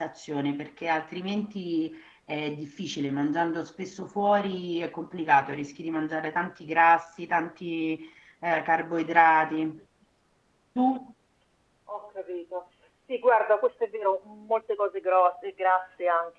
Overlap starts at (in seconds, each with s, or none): none